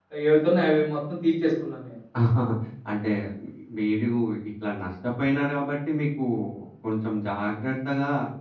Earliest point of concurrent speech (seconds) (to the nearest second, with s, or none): none